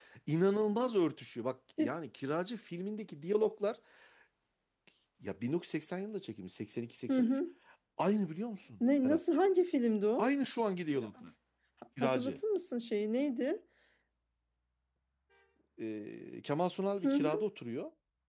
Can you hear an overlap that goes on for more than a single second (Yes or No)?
No